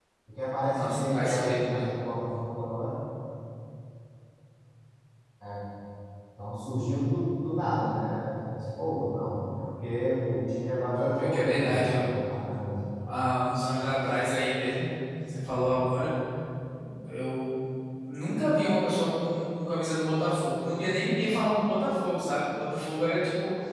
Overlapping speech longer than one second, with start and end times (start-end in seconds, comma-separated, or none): 0.7-2.0, 11.0-12.2